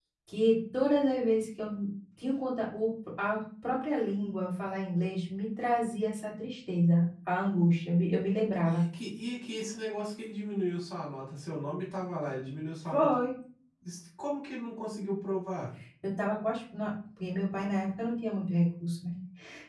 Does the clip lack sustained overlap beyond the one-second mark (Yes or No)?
Yes